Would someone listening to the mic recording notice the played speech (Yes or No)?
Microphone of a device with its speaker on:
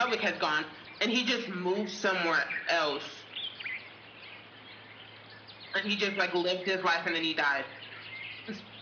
Yes